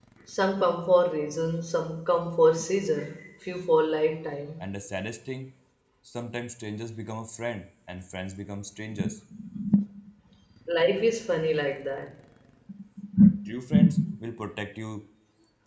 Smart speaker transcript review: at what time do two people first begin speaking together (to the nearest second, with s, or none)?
none